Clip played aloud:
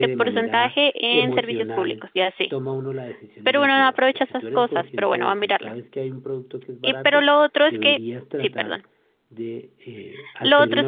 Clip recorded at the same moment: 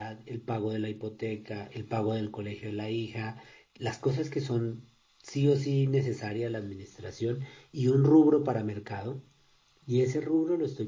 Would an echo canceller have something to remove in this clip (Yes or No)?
No